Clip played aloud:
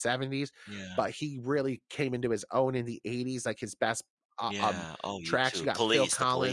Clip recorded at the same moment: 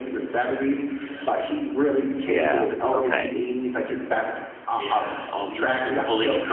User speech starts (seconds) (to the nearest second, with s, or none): 2 s